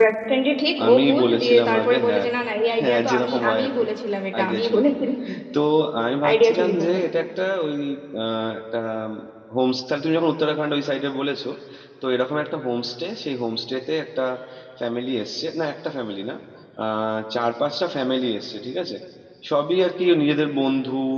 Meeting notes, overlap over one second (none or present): present